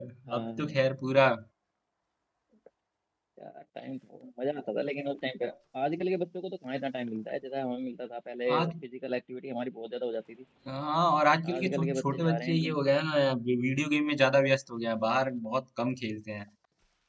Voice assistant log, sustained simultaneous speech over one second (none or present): present